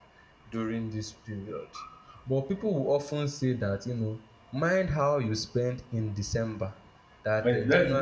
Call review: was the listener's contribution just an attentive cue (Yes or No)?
No